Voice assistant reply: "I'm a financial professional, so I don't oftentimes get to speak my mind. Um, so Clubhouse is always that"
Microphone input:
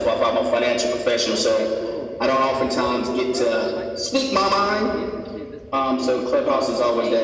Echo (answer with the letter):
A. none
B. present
B